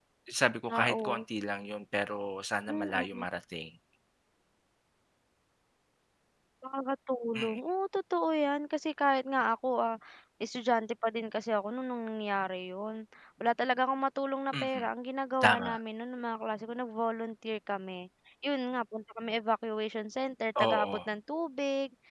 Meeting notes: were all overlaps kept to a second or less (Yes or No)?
Yes